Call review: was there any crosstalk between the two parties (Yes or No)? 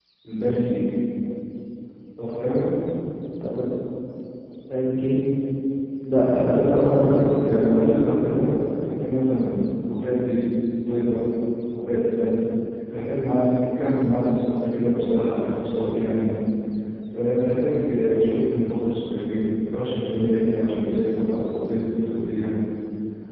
Yes